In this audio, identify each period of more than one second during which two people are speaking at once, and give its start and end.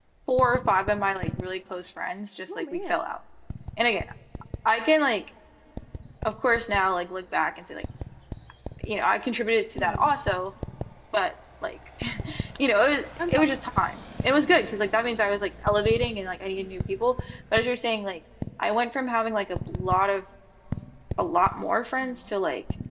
none

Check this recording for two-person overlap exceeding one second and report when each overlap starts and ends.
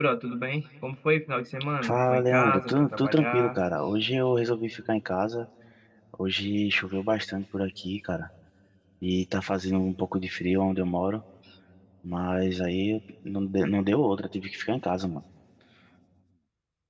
1.8-3.6

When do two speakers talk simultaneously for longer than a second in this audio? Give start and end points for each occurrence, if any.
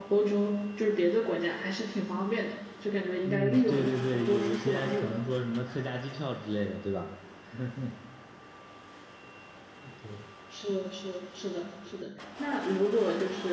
3.2-5.2

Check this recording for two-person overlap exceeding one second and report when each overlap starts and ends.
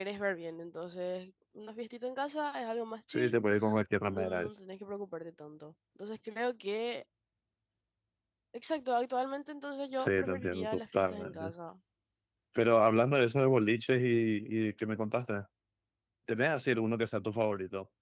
10.0-11.5

